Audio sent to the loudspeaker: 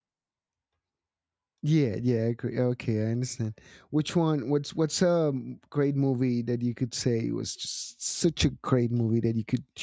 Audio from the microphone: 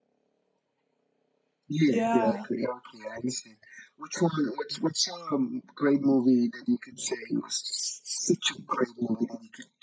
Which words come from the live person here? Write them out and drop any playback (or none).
Yeah.